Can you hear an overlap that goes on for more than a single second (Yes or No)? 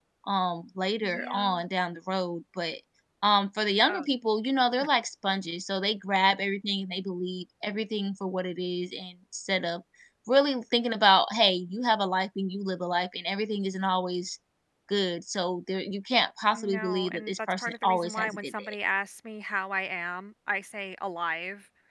Yes